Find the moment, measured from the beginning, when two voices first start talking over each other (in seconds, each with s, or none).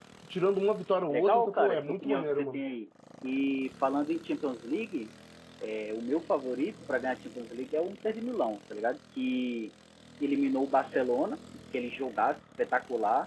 1.1 s